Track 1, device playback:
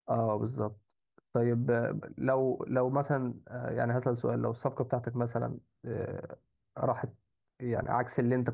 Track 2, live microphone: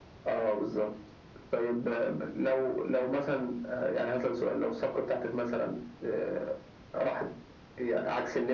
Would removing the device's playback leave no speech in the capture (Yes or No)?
Yes